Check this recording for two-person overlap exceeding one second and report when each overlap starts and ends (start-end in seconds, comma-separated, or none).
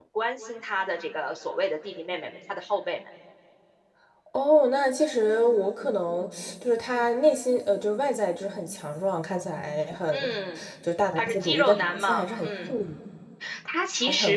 11.2-12.7